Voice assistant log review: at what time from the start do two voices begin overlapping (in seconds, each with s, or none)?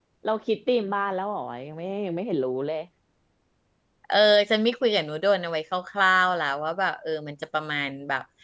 none